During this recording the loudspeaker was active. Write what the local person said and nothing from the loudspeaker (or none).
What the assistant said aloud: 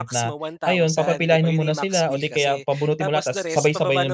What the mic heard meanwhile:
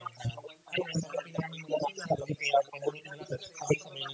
none